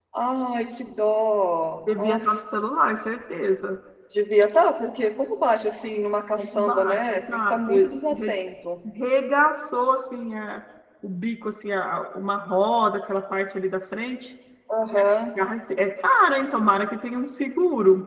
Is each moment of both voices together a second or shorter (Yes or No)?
No